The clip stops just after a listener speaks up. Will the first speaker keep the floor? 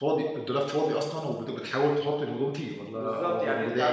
No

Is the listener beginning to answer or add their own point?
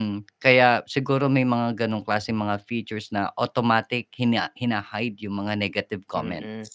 Yes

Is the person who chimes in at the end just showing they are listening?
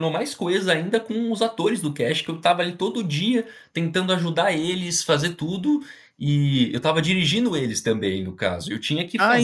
No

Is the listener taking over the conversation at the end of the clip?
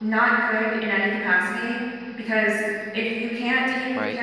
No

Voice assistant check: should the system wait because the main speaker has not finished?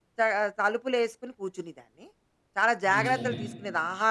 Yes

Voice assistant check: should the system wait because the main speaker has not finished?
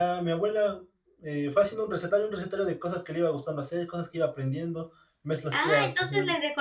No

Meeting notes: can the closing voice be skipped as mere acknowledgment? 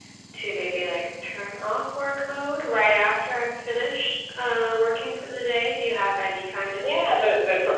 No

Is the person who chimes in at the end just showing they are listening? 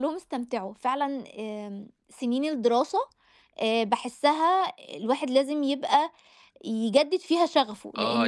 No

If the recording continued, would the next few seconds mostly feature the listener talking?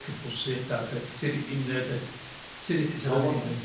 No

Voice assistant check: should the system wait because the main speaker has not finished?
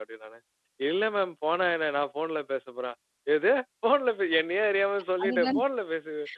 Yes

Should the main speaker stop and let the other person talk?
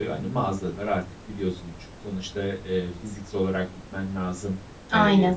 No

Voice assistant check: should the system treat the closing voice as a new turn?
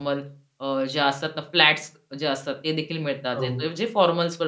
No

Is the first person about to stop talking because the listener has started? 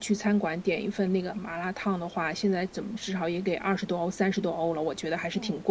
Yes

